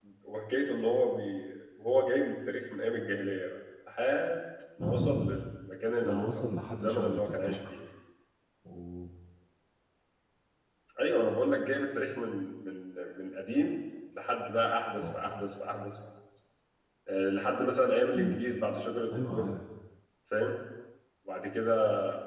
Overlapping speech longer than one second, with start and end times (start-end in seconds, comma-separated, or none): 6.0-7.6